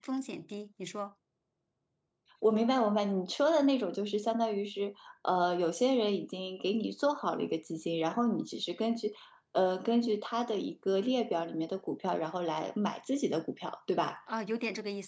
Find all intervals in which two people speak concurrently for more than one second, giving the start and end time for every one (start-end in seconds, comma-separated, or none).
none